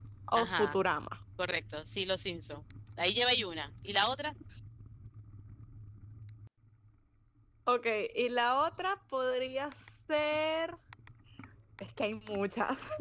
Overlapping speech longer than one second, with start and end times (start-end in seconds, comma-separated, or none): none